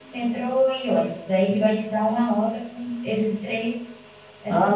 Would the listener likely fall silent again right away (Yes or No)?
No